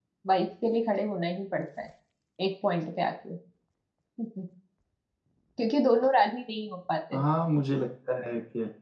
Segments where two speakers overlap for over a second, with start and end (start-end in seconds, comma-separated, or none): none